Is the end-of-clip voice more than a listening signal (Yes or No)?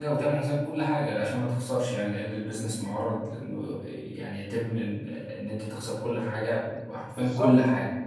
Yes